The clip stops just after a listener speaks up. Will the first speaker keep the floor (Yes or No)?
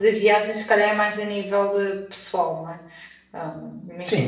No